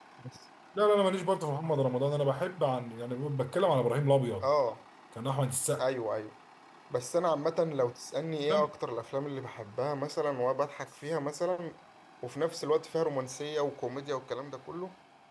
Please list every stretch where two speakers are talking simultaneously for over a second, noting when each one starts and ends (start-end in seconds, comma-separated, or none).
none